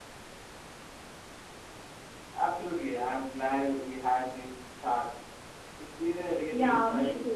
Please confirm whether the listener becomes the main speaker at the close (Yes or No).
Yes